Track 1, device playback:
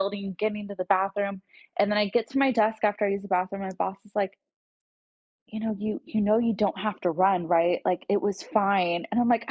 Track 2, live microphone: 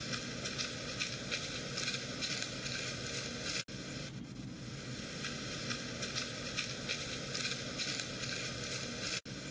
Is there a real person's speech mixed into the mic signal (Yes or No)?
No